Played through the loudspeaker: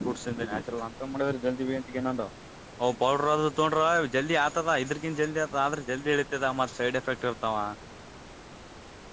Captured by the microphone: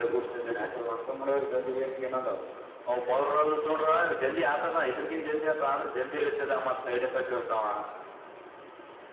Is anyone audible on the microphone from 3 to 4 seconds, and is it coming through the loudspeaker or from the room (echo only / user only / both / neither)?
echo only